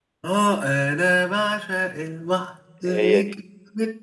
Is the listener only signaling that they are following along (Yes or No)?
Yes